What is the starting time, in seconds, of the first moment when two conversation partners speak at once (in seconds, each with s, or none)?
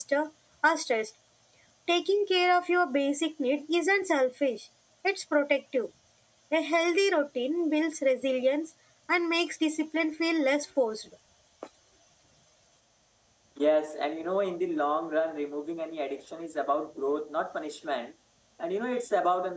none